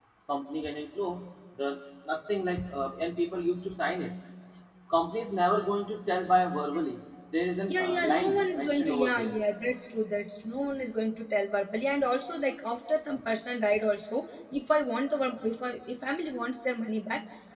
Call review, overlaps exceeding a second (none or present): present